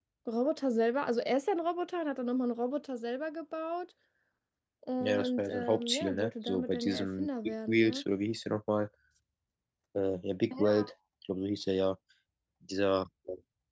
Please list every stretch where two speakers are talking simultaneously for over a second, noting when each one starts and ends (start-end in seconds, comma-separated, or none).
5.0-8.0